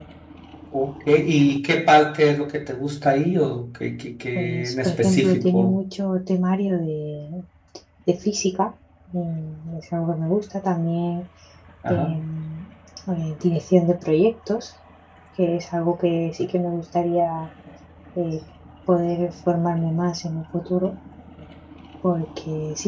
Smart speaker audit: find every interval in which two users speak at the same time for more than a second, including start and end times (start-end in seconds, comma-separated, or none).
4.3-5.8